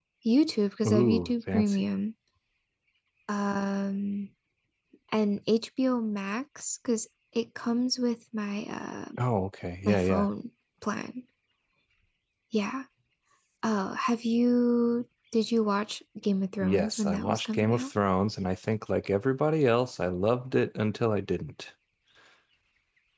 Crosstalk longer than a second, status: present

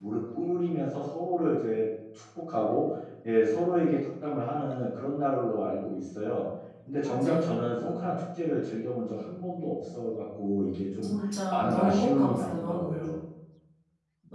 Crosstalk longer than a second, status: present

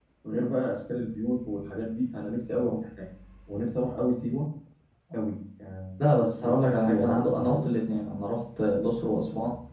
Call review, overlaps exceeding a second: present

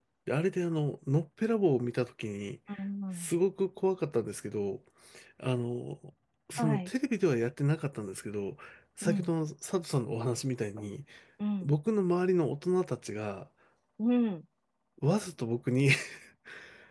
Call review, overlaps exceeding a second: none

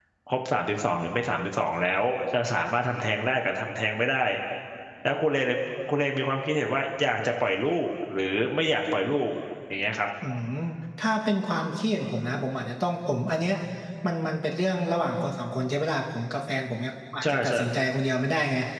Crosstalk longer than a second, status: none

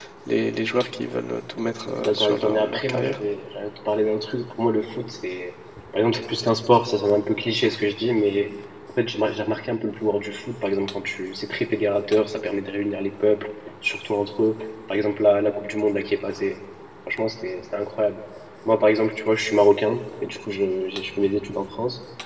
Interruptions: present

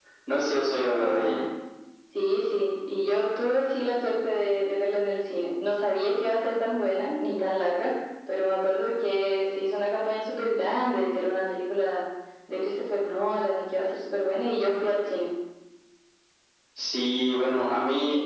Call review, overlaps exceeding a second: none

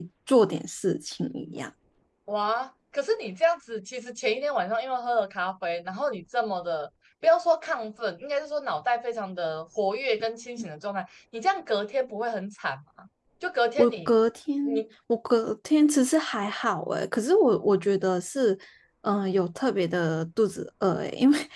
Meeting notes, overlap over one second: none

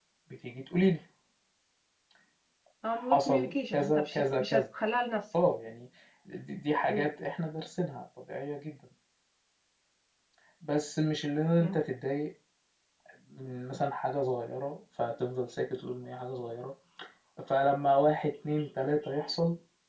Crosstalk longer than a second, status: present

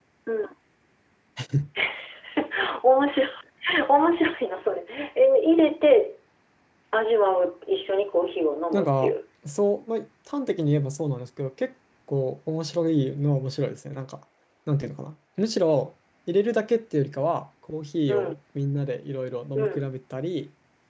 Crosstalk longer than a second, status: none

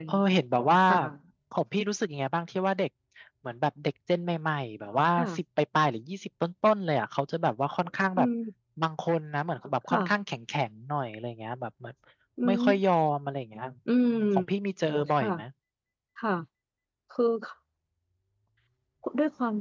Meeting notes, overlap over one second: none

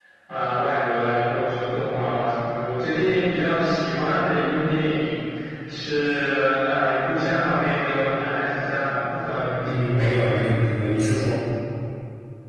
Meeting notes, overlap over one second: none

